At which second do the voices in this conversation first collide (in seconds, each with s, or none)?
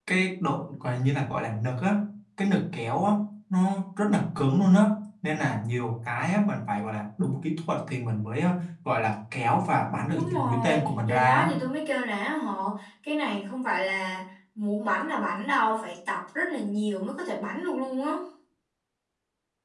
10.1 s